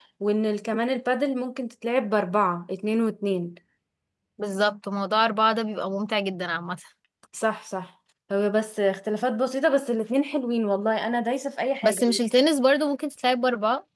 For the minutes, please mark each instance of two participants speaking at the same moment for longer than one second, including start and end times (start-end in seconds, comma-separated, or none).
none